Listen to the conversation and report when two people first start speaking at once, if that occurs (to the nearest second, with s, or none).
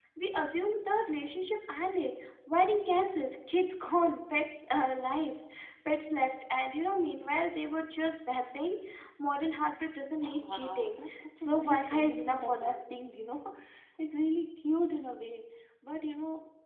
10 s